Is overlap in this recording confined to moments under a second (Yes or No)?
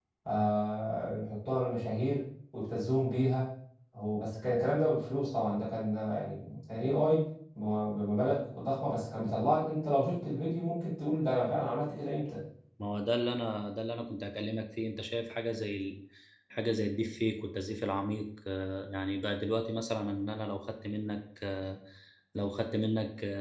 Yes